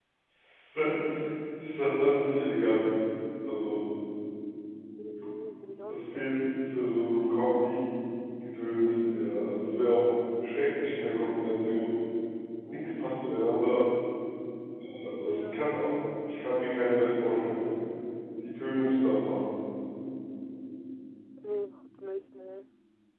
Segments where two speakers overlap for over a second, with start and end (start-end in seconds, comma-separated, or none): none